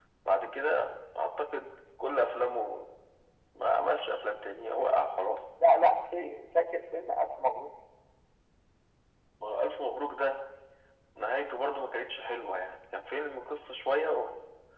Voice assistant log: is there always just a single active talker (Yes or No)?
Yes